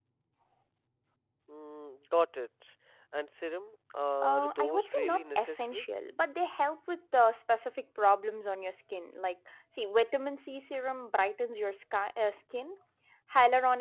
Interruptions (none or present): present